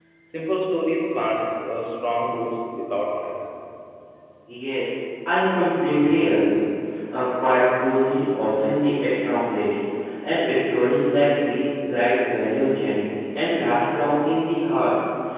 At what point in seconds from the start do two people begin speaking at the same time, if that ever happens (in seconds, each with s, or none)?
none